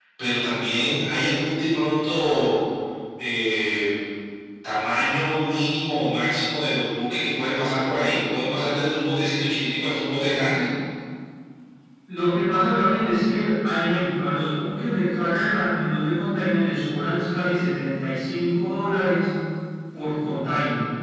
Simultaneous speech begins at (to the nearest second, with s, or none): none